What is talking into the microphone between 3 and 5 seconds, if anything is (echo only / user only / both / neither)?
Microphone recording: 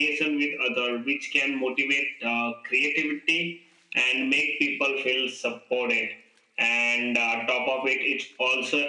echo only